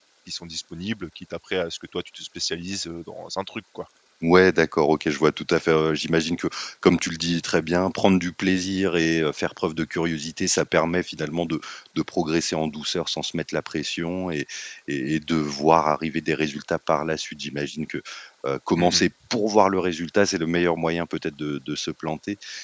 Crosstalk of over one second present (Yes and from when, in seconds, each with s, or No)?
No